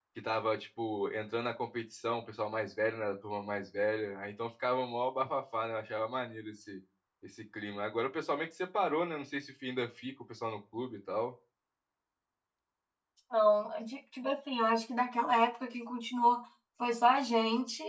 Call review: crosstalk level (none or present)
none